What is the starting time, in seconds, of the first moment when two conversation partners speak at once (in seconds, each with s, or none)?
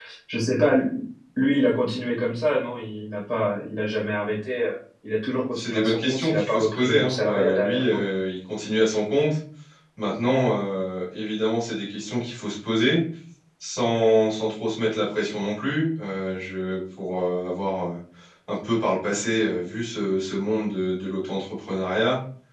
5.5 s